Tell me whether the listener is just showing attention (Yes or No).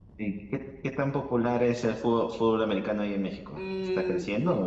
No